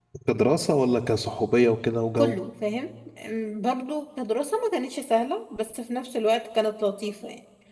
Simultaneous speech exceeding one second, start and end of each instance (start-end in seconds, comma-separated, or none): none